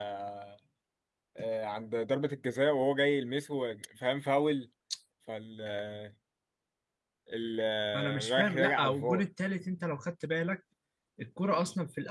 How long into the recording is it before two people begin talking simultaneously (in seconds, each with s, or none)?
7.9 s